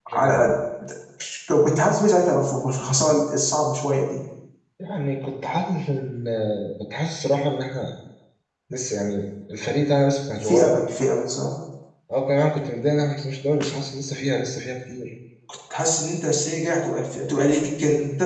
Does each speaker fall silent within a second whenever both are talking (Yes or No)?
Yes